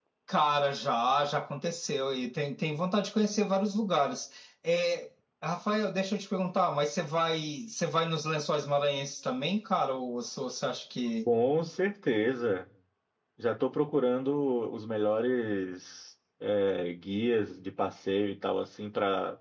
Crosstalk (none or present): none